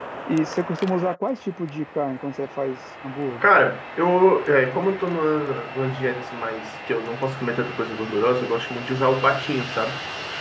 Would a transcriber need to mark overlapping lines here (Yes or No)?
No